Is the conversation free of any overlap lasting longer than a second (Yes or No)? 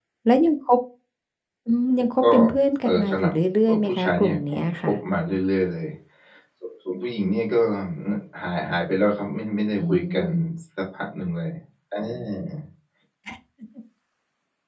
No